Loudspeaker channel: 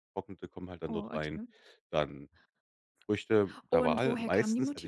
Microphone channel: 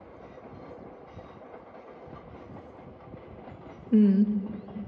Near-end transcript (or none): Mhm.